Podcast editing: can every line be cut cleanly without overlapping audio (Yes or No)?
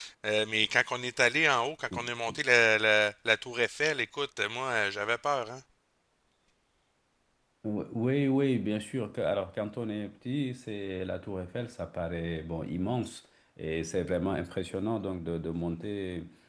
Yes